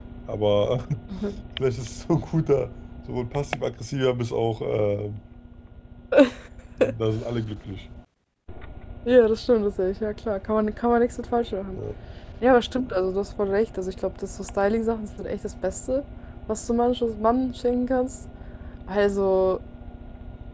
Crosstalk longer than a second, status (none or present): none